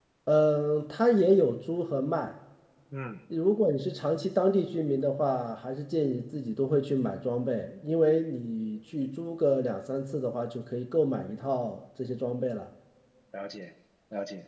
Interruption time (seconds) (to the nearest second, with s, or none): none